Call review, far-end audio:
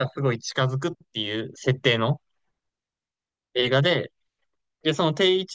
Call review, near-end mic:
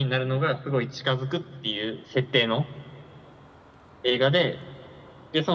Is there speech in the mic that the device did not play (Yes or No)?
No